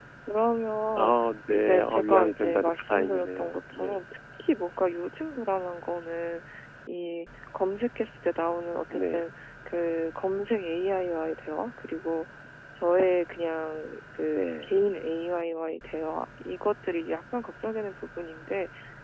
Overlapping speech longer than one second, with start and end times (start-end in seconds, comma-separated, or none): 1.5-4.0